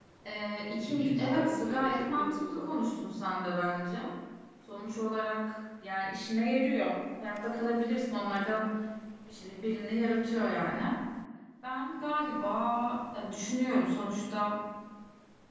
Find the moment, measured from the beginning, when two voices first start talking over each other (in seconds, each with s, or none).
0.9 s